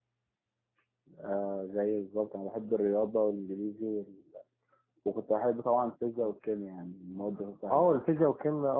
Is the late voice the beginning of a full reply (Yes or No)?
Yes